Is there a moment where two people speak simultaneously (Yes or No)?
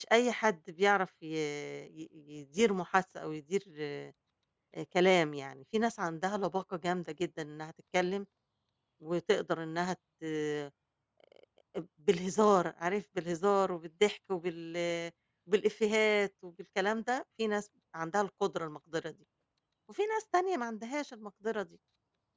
No